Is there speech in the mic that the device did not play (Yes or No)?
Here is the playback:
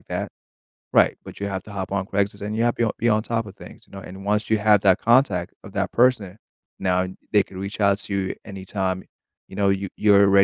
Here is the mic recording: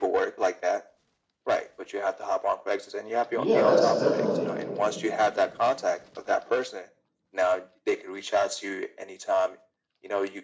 Yes